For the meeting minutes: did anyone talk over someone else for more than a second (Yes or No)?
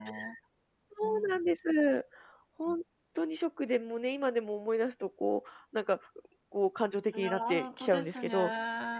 Yes